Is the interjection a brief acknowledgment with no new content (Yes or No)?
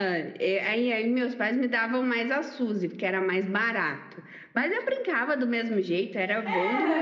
No